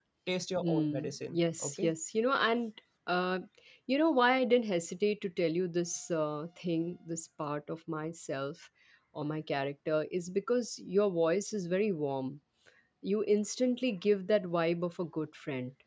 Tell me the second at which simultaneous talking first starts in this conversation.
1 s

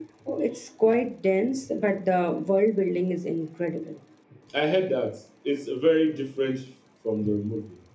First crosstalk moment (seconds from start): none

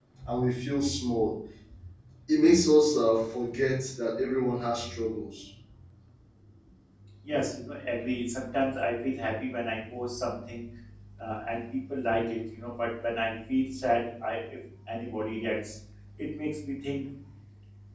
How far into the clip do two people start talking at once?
none

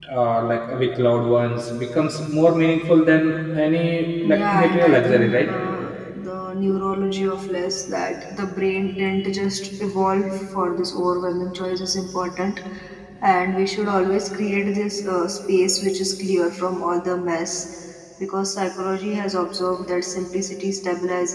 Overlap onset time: 4 s

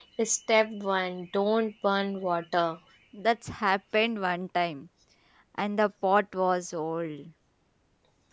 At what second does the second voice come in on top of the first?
none

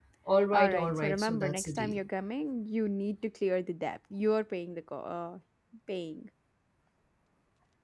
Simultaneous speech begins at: 1 s

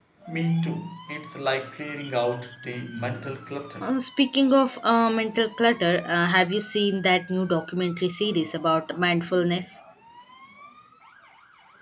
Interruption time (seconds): none

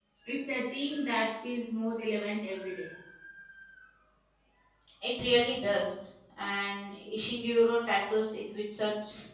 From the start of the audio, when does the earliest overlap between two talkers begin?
none

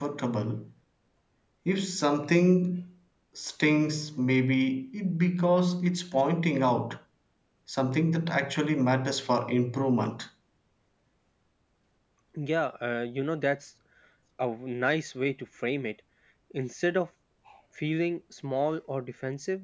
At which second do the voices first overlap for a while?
none

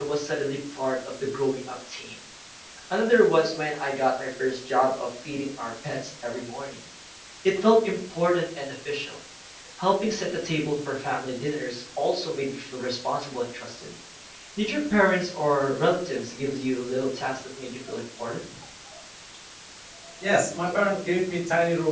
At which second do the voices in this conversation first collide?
none

